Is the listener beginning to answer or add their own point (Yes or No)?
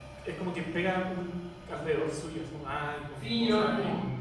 Yes